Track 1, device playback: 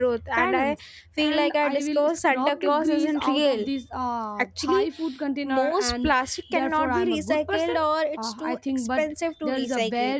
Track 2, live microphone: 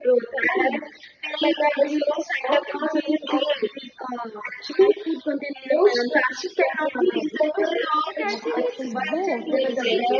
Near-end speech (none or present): present